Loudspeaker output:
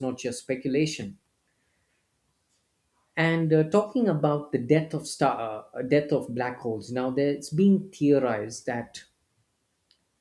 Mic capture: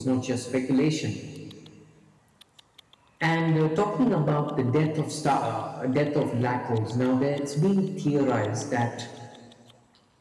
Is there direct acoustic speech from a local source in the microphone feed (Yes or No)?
No